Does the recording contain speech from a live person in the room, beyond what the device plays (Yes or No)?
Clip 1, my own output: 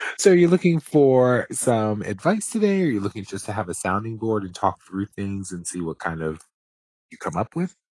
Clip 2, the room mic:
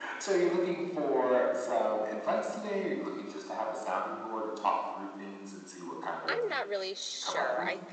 Yes